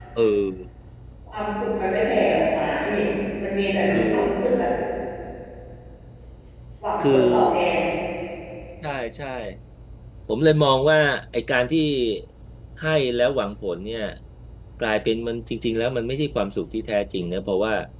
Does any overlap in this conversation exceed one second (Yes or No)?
No